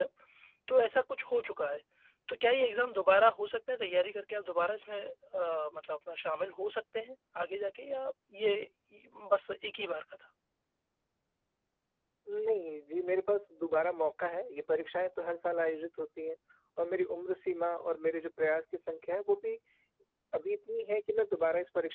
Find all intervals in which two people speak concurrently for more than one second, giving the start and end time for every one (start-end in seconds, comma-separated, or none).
none